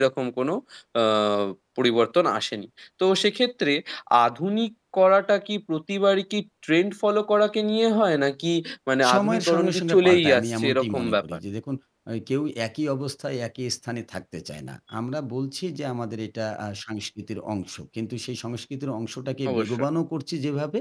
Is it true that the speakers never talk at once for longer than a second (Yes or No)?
No